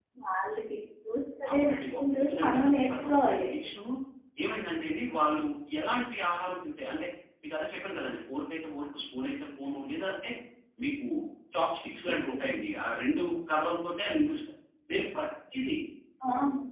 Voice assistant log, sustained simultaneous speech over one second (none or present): present